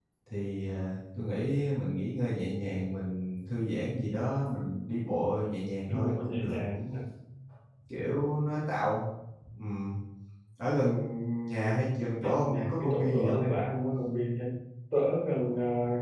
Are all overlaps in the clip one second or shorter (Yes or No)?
No